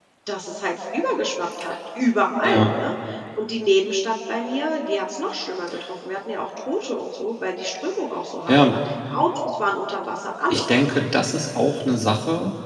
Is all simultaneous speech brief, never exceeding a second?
Yes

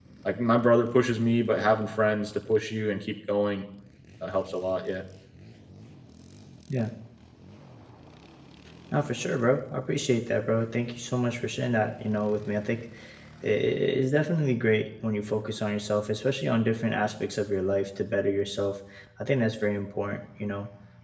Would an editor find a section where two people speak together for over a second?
No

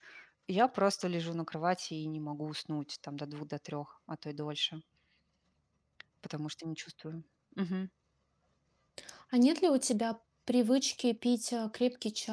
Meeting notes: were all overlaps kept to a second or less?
Yes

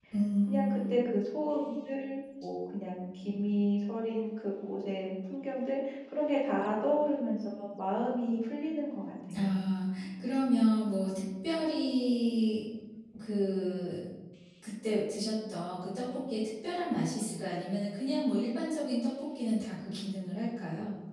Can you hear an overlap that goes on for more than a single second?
No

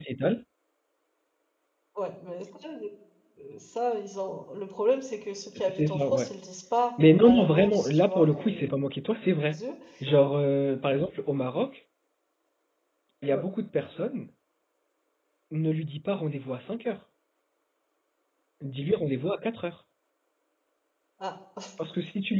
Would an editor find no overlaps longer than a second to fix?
No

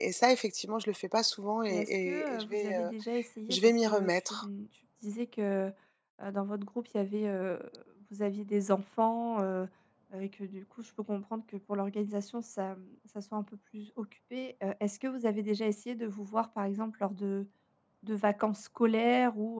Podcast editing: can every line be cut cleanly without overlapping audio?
No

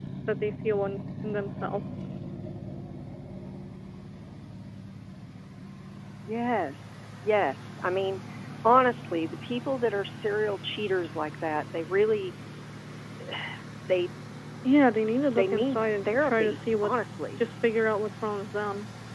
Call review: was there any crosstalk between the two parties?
Yes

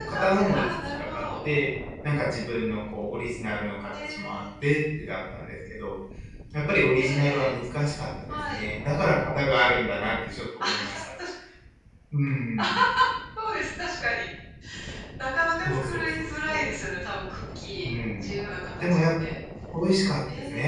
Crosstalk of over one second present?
Yes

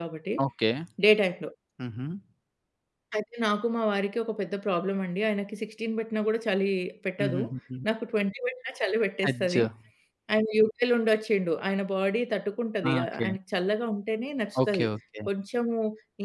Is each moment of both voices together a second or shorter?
Yes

